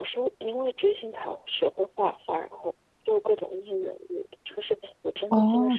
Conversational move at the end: taking over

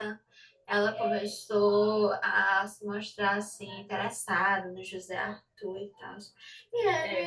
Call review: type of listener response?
taking over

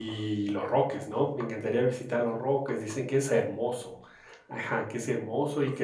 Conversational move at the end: listening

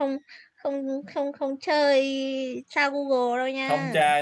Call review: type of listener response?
taking over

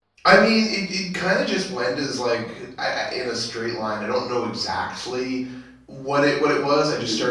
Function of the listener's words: listening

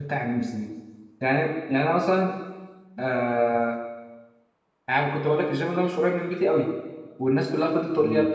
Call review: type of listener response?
listening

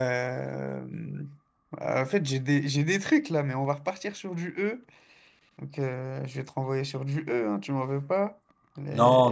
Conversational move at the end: taking over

